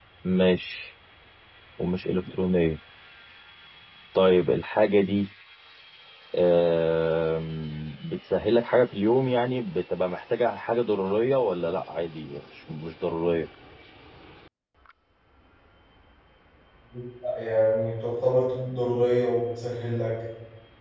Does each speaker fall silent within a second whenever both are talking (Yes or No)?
Yes